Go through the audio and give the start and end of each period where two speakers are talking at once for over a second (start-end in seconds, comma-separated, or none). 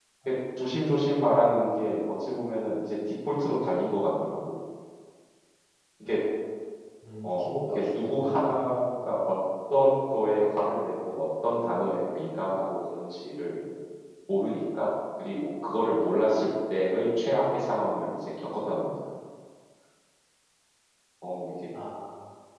7.2-8.5